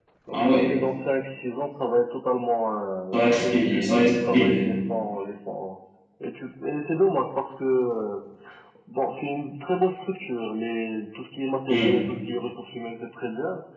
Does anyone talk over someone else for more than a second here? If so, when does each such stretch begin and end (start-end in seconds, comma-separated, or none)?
3.1-4.7